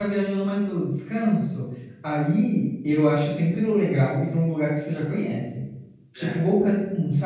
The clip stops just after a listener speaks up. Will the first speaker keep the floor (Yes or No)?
Yes